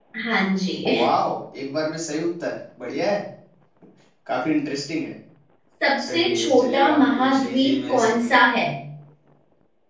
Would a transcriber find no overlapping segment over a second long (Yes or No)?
No